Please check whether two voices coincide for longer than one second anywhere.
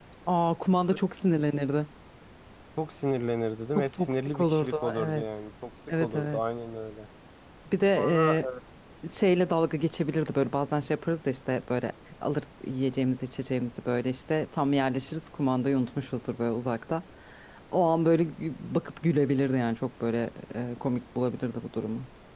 Yes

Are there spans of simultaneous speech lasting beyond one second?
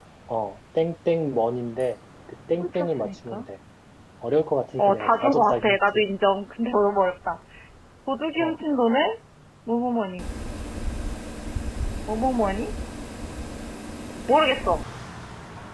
Yes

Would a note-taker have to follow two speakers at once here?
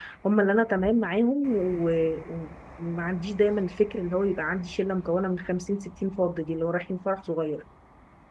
No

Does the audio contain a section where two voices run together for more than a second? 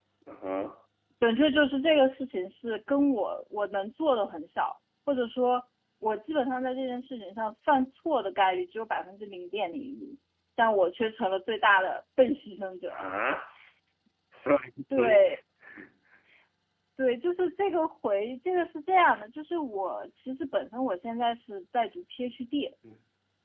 No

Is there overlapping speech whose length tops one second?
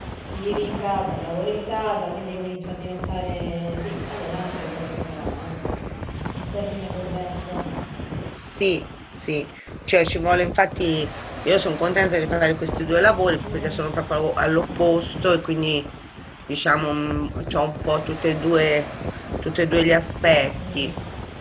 No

